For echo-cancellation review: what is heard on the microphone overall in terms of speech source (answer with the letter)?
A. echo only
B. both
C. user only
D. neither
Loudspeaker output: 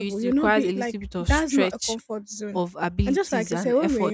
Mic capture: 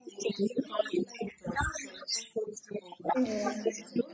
B